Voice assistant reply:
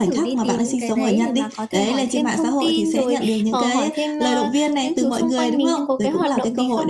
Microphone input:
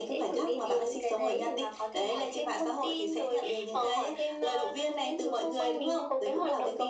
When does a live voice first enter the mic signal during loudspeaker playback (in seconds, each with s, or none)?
none